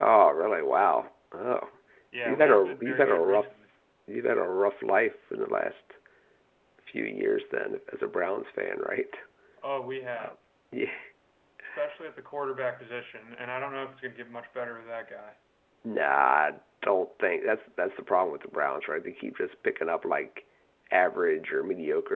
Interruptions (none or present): present